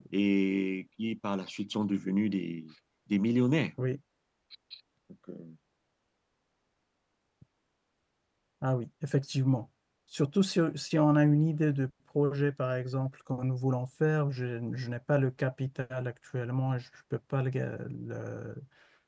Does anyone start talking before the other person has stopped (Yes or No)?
No